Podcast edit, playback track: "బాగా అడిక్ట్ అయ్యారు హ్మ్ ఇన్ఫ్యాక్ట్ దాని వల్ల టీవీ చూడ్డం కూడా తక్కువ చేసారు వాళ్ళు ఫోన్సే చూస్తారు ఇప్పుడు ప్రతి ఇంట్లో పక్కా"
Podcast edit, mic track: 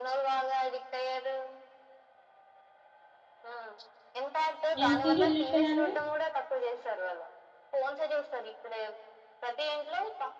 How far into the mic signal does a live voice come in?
4.8 s

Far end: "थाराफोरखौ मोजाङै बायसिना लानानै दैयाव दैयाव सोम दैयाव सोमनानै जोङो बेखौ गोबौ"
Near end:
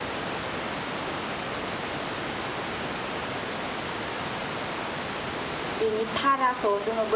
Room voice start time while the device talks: 5.8 s

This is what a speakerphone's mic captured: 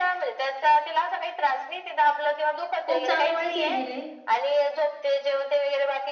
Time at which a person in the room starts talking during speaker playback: 2.8 s

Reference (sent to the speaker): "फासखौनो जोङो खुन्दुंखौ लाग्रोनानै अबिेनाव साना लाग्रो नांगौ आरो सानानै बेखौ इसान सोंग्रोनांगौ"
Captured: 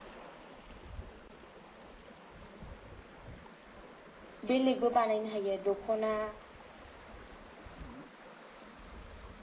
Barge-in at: 4.5 s

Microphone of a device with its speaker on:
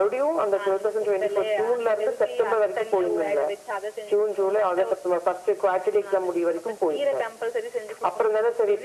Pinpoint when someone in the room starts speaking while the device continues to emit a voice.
none

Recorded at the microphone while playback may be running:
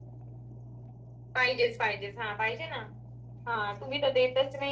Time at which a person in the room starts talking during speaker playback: 1.3 s

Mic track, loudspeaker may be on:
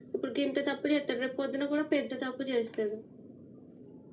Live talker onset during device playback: none

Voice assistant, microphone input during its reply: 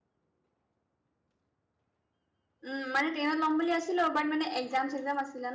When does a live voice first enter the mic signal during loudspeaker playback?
2.6 s

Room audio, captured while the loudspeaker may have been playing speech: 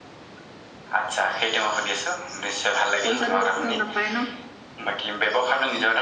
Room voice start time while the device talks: 3.0 s

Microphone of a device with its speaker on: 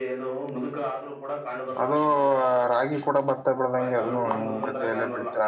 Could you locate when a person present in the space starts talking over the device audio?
1.8 s

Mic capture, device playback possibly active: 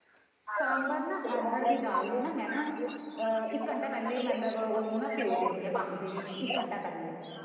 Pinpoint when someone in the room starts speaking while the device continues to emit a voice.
0.5 s

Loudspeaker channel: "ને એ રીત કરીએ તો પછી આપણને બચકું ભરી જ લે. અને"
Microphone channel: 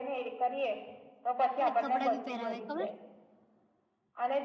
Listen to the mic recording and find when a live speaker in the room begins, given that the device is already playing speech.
1.6 s

